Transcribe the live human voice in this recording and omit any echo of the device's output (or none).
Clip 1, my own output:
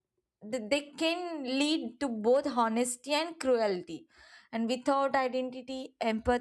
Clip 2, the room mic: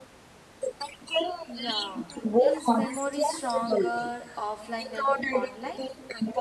Yeah, is memory stronger offline than online?